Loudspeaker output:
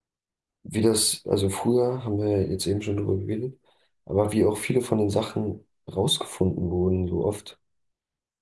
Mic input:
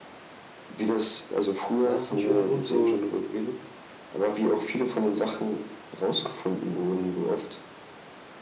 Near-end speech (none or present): present